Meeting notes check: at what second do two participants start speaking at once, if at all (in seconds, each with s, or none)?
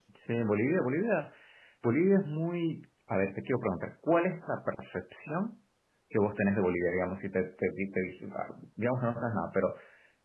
none